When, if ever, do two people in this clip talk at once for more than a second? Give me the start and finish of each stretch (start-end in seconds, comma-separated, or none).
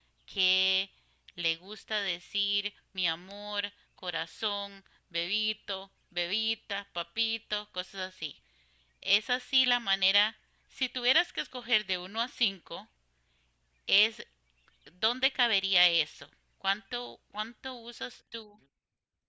none